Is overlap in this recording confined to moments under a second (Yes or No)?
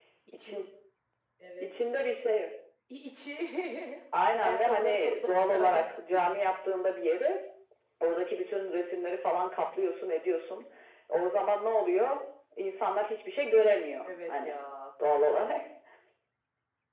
No